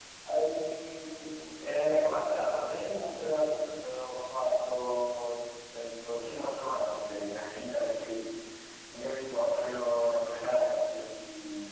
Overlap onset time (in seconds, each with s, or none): 1.6 s